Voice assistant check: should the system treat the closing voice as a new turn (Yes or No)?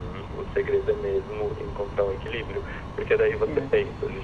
No